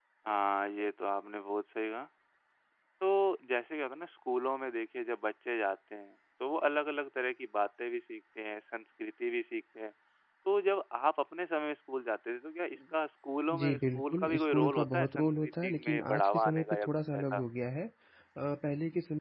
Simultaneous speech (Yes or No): Yes